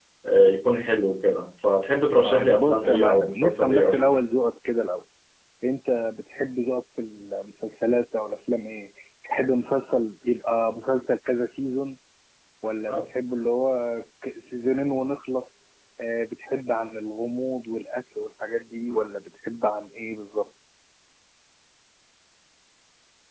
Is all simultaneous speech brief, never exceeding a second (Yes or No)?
No